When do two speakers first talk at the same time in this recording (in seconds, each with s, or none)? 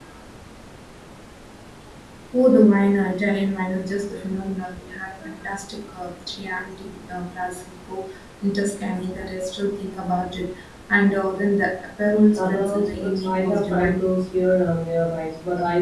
12.3 s